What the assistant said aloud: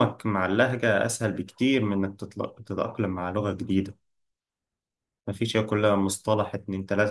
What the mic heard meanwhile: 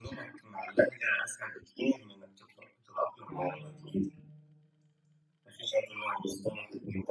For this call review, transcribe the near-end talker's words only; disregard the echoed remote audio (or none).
امم